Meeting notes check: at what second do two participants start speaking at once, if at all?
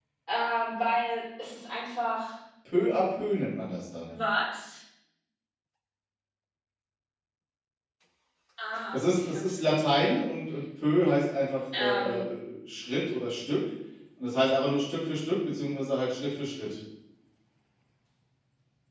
8.9 s

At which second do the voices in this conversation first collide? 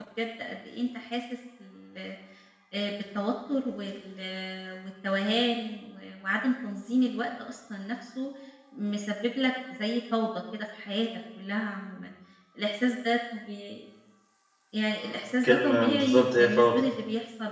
14.9 s

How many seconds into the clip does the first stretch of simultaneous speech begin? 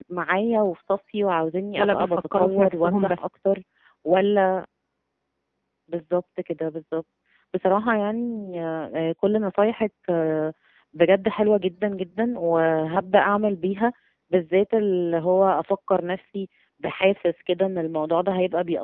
1.8 s

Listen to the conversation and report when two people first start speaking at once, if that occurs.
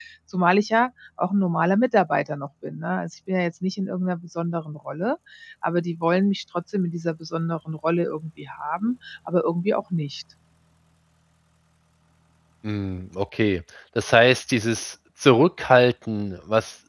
none

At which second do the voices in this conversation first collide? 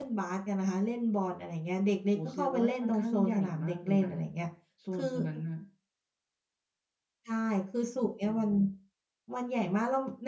2.1 s

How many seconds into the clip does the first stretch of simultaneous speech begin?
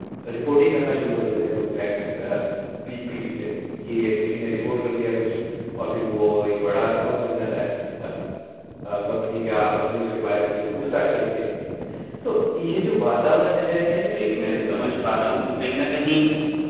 14.1 s

